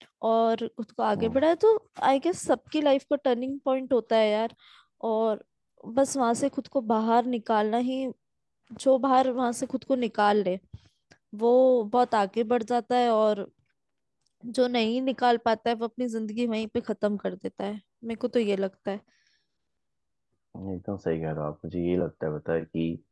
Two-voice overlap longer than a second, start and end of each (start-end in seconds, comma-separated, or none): none